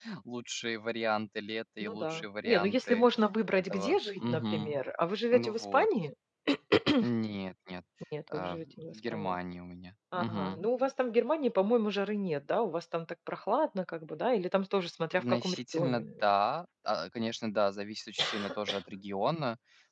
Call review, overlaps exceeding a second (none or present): present